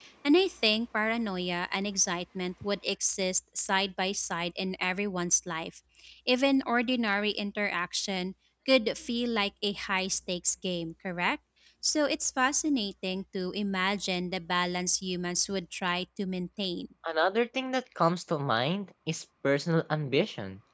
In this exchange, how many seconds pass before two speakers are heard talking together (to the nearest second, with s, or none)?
none